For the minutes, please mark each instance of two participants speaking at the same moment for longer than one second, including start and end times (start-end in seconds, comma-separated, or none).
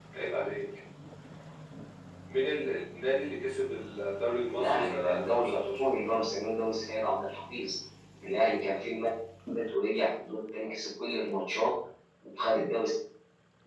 4.5-5.8